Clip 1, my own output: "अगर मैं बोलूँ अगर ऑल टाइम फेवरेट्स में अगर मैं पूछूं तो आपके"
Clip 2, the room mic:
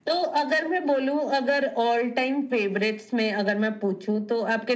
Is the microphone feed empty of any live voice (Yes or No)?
Yes